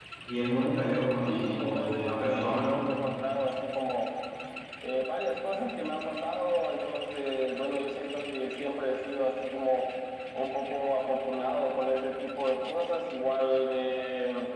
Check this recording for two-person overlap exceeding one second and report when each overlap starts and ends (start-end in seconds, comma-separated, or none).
1.3-2.7